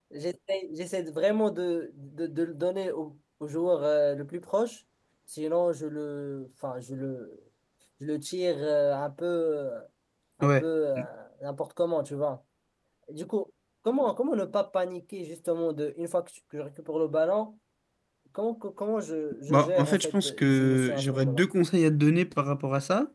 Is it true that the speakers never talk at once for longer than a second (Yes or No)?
No